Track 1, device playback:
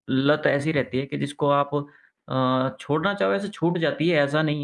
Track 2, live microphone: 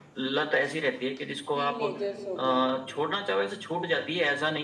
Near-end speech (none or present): present